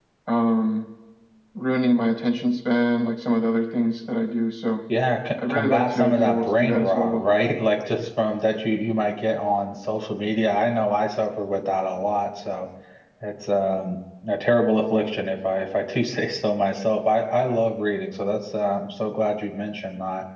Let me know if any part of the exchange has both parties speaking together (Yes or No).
Yes